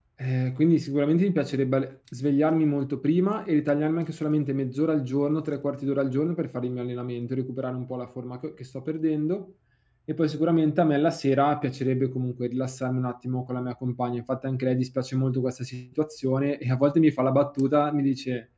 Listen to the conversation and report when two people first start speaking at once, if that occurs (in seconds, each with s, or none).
none